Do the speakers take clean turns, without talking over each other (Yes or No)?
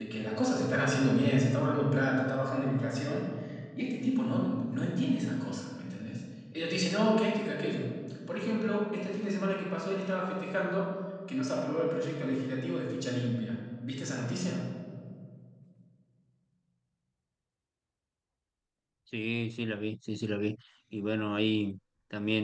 Yes